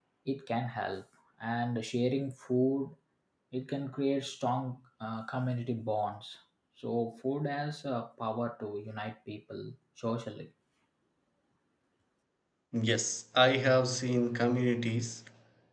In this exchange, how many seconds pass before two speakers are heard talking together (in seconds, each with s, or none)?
none